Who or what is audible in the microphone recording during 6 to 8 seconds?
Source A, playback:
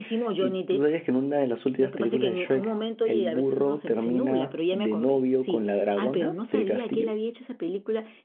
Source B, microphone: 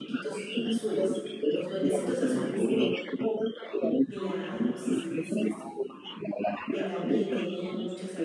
both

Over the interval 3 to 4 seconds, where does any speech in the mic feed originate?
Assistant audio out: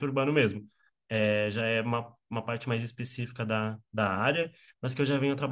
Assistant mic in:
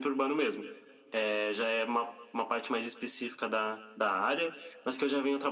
echo only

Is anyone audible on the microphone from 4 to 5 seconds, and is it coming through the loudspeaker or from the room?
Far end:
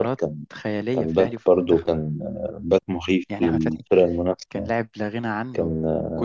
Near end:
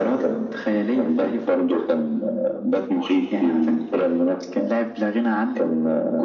echo only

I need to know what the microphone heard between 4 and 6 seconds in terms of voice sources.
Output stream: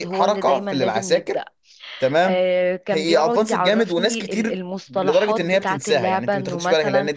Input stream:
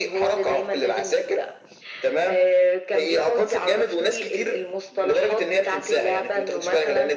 echo only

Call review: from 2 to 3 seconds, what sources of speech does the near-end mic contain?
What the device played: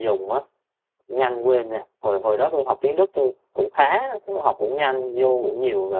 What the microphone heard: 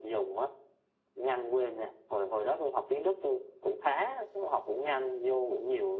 echo only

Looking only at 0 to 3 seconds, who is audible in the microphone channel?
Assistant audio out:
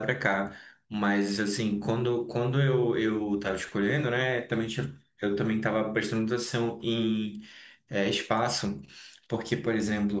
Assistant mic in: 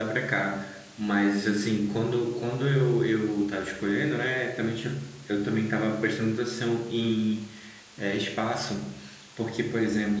echo only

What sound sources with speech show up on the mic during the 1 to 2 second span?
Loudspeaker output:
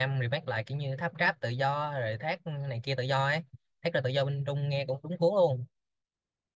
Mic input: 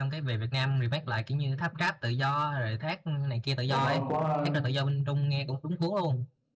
echo only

